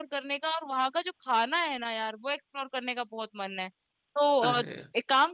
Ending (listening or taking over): listening